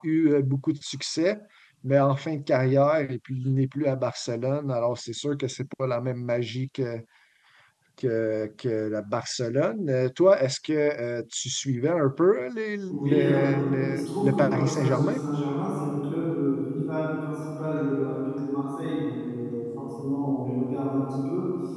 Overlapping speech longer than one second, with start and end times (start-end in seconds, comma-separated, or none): 12.8-15.2